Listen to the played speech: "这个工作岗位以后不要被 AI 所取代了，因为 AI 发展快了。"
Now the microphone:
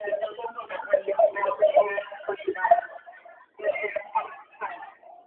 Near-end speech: none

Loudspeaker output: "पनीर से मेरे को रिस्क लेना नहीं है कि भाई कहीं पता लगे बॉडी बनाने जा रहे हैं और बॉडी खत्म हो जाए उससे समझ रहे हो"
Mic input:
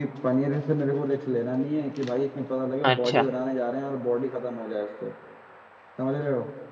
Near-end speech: present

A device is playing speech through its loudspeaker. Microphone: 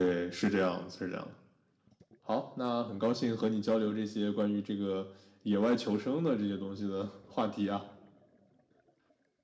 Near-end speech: none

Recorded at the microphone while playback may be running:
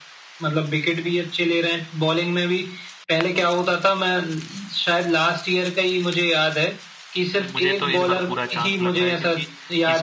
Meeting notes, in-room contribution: present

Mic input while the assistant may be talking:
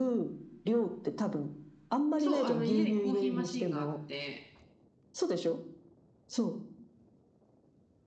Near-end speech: present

